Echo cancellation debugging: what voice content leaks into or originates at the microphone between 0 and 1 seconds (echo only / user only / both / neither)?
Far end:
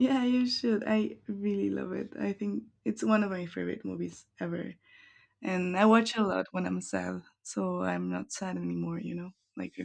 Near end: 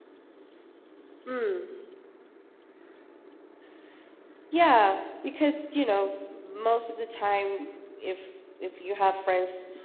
neither